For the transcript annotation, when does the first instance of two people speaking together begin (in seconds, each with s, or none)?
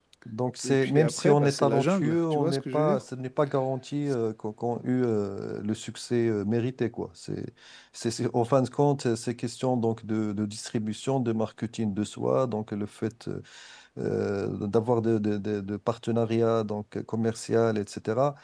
0.6 s